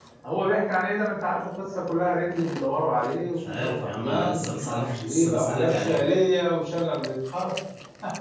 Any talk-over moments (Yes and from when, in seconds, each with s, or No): Yes, from 3.4 s